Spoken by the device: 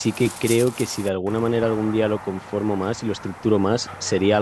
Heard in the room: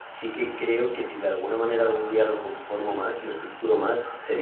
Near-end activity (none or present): none